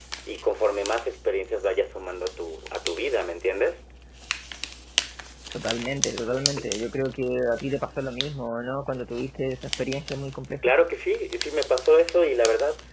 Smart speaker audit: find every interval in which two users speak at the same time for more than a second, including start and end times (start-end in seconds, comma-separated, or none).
none